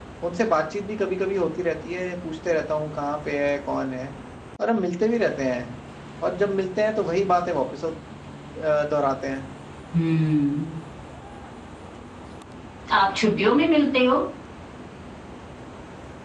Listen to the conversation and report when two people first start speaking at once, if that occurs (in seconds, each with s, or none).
none